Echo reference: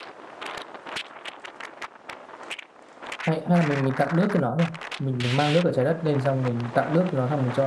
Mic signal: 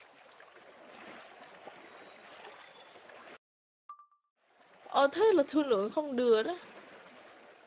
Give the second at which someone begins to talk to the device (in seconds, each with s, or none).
4.8 s